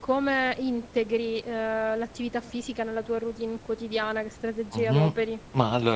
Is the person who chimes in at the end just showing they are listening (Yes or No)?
No